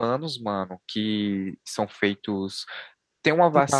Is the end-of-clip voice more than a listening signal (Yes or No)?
No